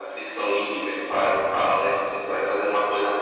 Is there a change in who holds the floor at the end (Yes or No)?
No